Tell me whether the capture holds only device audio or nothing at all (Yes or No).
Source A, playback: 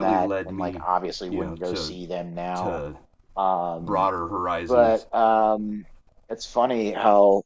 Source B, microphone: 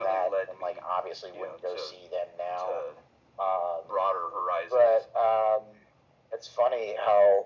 Yes